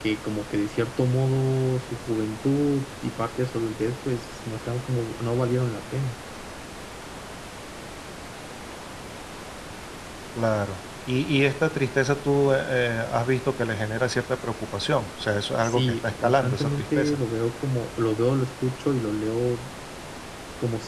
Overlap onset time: 15.6 s

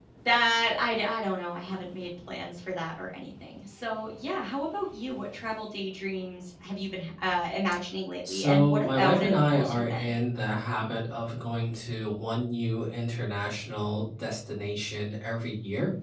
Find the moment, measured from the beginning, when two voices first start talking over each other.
8.2 s

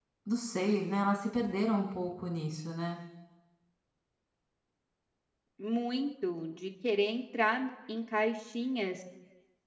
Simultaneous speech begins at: none

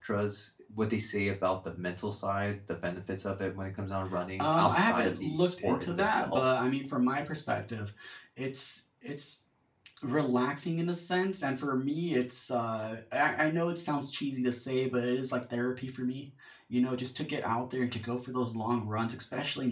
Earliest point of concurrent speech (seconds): 4.4 s

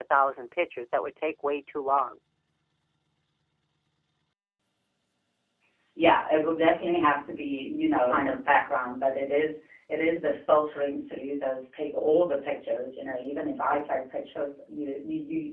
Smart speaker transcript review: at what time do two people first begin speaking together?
none

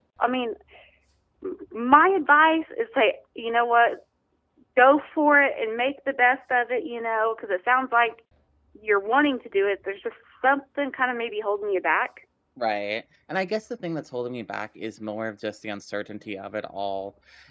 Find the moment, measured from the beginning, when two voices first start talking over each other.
none

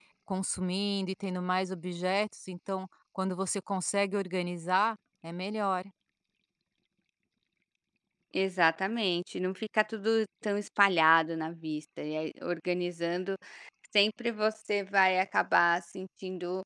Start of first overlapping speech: none

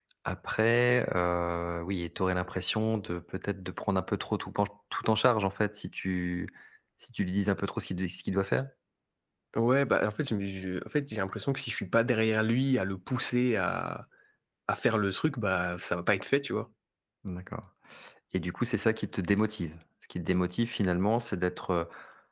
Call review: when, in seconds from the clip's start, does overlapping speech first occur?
none

